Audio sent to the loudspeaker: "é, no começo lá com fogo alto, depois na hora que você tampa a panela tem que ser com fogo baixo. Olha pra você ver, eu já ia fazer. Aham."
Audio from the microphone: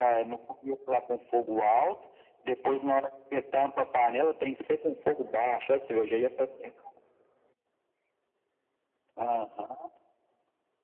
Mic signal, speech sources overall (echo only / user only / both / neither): echo only